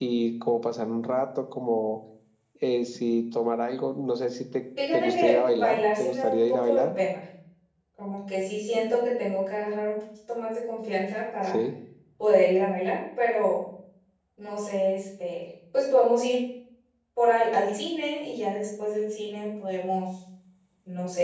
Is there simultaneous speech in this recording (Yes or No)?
Yes